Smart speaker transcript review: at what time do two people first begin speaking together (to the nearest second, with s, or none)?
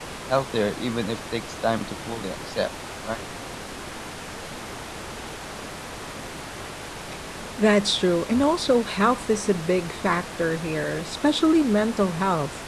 none